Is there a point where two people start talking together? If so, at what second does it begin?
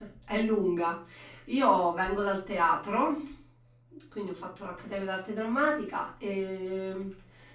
none

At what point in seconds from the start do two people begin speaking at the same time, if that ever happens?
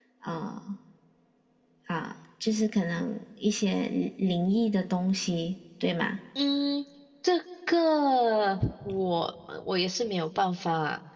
none

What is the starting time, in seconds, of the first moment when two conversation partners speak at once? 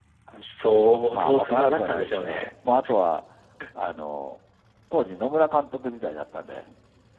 1.0 s

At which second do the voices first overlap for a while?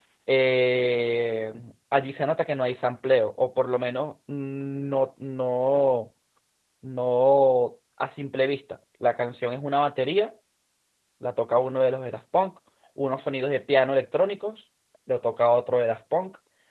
none

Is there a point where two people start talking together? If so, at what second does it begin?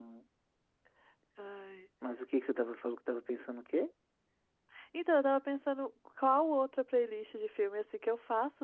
none

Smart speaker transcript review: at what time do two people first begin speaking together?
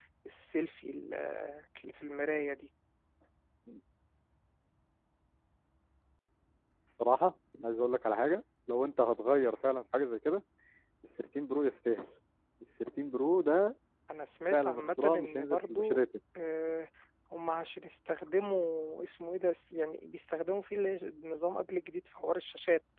14.5 s

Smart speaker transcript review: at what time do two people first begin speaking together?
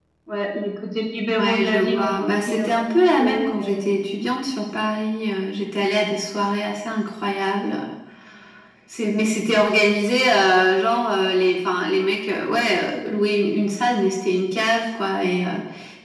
1.4 s

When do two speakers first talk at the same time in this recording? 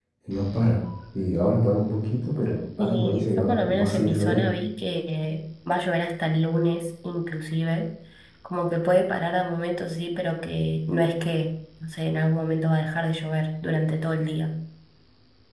2.8 s

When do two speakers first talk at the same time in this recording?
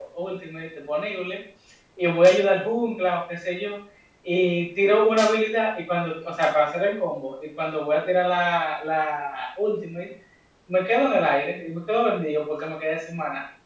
none

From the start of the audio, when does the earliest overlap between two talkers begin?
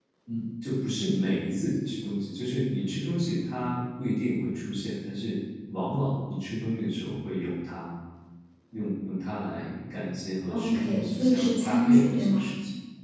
10.5 s

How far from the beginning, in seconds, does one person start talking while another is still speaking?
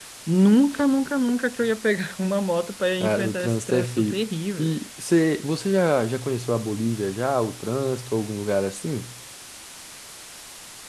3.0 s

